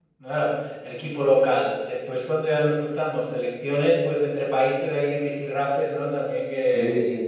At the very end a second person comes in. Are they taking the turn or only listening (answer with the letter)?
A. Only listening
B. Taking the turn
B